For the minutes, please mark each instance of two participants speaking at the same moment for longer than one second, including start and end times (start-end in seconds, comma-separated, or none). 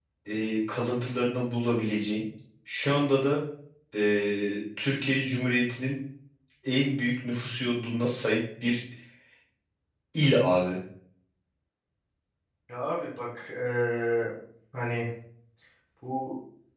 none